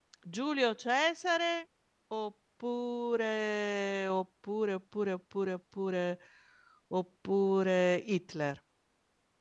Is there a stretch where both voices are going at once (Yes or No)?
No